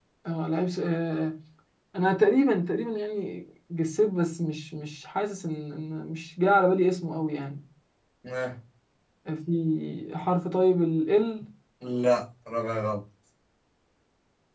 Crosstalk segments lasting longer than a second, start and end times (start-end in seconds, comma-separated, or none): none